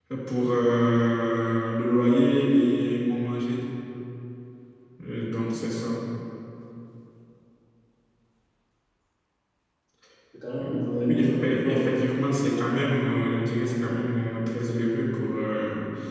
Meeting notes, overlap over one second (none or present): present